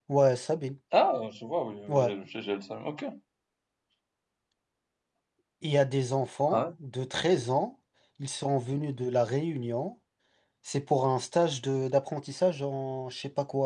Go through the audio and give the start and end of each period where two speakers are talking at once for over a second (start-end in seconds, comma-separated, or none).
none